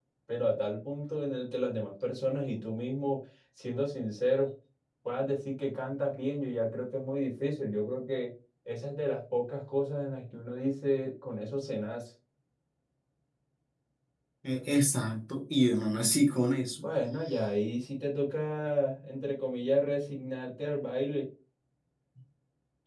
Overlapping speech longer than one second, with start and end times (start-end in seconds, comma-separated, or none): none